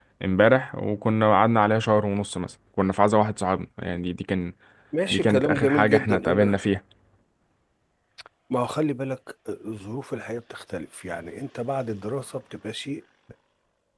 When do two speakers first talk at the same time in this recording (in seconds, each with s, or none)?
5.1 s